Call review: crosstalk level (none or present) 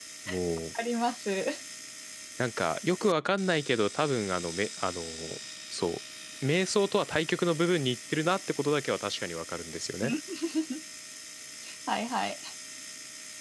none